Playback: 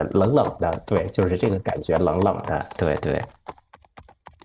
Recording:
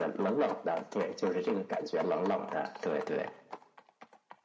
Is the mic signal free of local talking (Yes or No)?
Yes